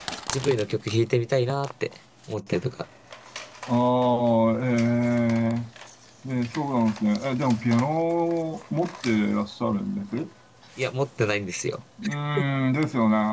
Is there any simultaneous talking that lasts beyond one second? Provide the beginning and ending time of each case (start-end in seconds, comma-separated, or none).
none